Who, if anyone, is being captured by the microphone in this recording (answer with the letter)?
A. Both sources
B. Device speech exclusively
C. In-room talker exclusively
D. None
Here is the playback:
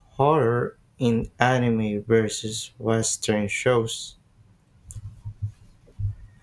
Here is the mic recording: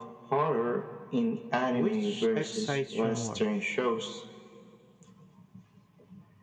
A